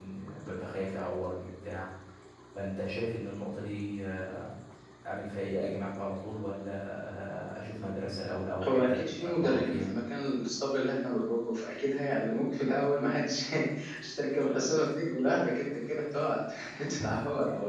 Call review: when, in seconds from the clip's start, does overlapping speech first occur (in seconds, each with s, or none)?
8.7 s